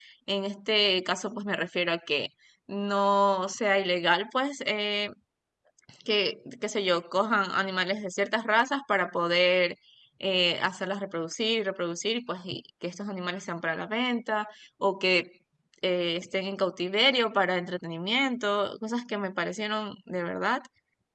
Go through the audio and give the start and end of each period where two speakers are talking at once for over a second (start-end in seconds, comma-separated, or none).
none